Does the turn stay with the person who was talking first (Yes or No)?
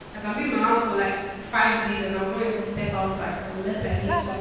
No